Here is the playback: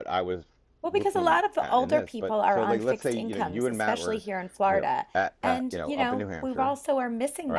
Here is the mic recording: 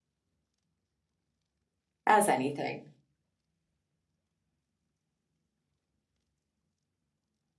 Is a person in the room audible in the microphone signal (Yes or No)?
Yes